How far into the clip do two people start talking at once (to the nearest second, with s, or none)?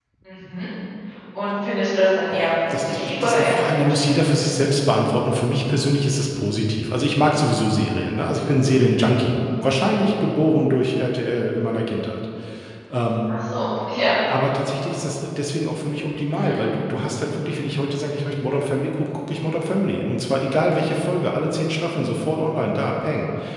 2 s